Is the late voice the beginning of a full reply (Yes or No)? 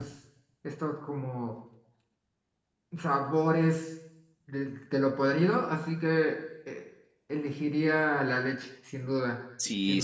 Yes